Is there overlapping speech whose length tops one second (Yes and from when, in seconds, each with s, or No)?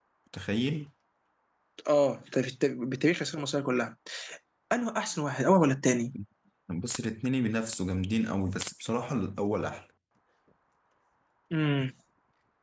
No